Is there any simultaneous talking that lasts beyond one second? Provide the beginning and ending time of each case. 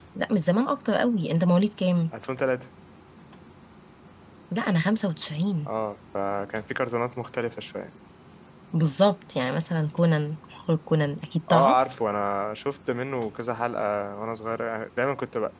none

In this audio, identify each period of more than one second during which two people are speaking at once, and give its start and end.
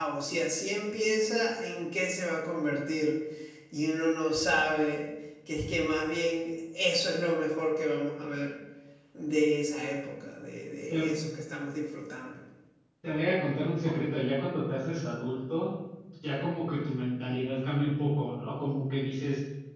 none

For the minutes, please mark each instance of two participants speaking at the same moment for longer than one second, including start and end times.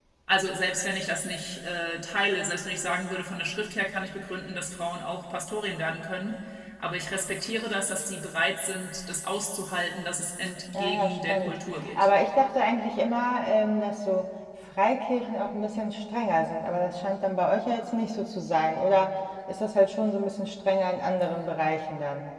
10.7-12.1

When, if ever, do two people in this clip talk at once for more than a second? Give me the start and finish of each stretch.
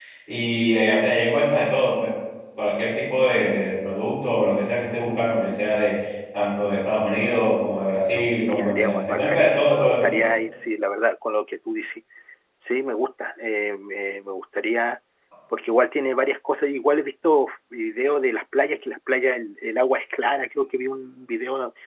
8.2-10.2

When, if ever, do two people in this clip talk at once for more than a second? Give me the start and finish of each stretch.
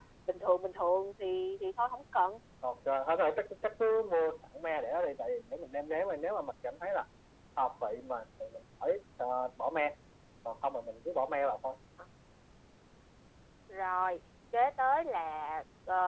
none

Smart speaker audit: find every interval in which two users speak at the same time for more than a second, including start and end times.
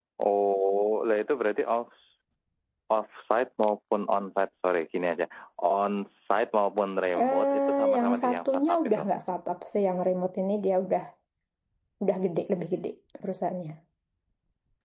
7.2-9.0

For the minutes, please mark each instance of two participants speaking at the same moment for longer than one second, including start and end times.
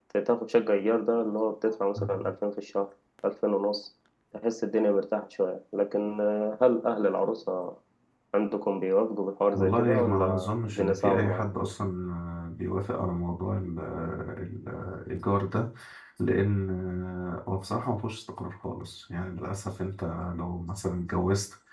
9.5-11.4

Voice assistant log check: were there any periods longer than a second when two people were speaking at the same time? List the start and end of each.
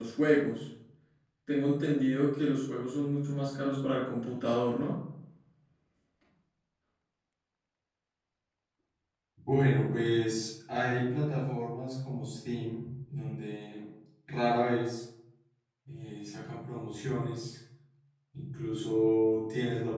none

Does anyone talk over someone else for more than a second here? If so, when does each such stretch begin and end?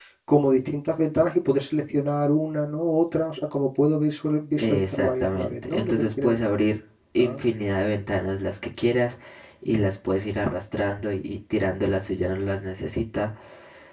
4.6-6.4

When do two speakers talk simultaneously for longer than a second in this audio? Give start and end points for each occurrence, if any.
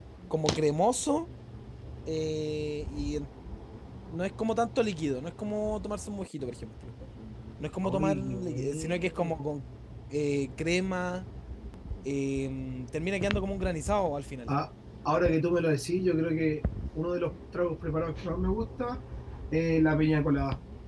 7.8-9.4

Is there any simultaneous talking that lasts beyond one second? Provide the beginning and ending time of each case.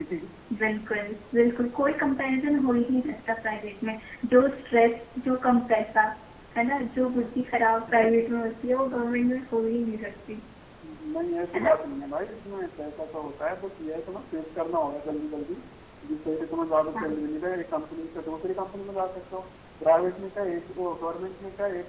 none

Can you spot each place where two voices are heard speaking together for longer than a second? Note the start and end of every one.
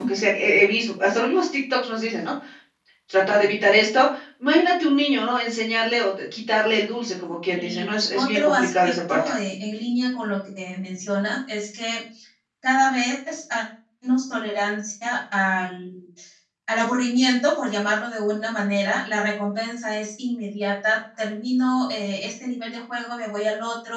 7.5-9.3

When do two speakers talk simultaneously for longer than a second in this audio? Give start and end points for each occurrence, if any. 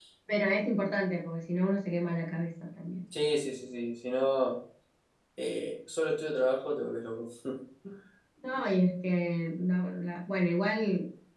none

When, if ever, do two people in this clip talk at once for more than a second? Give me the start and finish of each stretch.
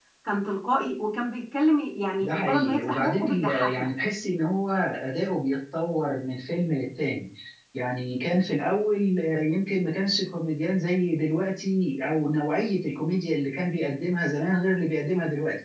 2.2-3.9

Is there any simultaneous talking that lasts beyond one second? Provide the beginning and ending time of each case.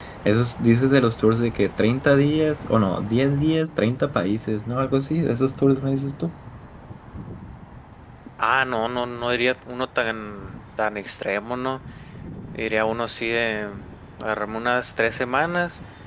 none

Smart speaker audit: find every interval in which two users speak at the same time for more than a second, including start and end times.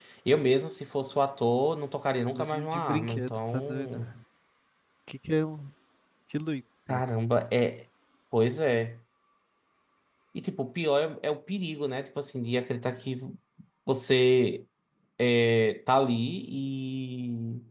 2.3-4.0

